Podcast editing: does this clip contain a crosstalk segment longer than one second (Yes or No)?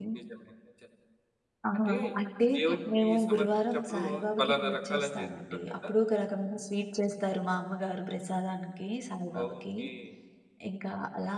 Yes